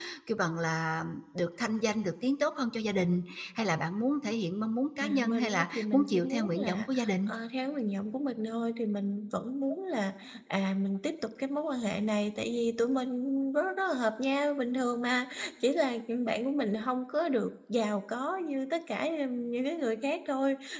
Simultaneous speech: Yes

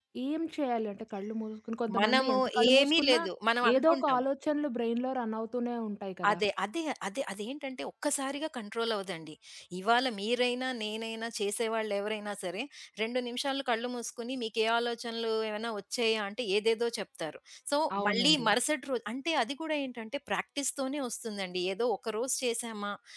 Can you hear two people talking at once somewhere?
Yes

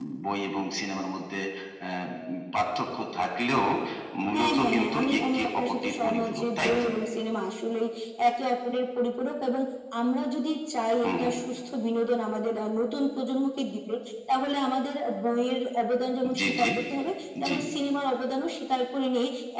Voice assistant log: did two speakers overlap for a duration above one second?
Yes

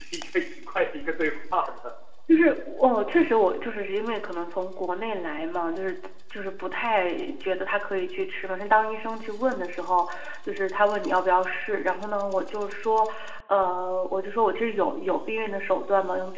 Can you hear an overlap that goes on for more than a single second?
No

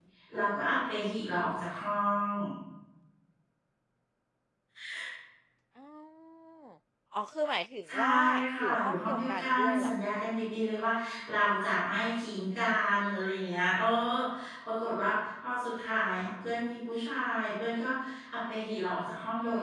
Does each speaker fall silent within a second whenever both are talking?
No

